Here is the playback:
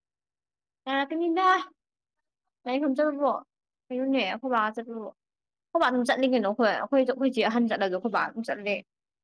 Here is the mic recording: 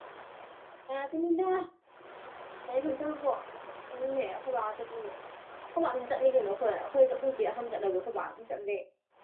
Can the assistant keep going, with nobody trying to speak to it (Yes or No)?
Yes